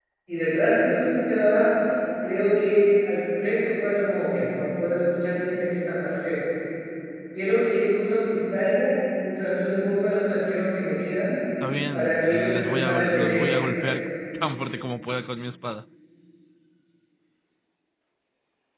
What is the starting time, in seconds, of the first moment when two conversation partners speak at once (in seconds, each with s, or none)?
11.9 s